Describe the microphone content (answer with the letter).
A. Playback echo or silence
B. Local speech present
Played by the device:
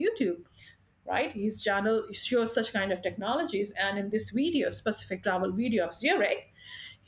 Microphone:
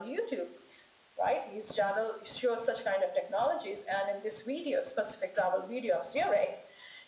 A